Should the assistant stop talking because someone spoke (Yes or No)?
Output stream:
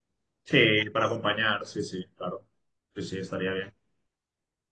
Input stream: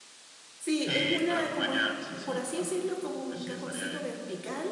Yes